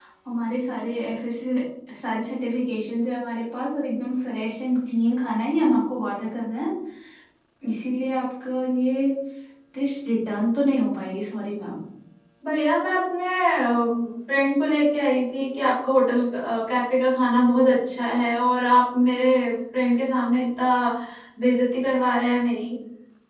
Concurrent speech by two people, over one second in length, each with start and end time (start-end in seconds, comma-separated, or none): none